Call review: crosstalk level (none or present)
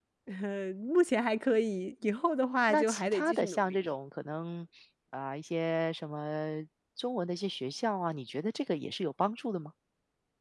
present